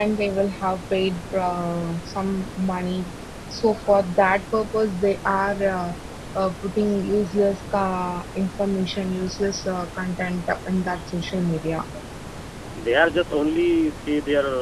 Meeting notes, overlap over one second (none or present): none